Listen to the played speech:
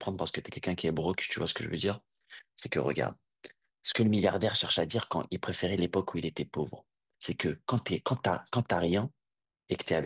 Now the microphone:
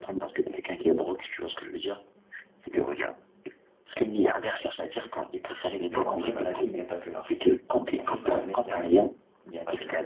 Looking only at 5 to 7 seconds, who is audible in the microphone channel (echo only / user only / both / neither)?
both